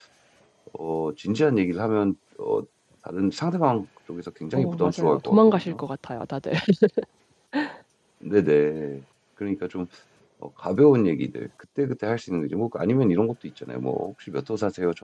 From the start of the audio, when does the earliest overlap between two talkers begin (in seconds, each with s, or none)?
4.5 s